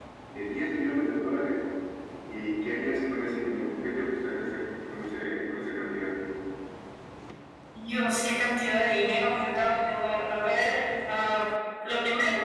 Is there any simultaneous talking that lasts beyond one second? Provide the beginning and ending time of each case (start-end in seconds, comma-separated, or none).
none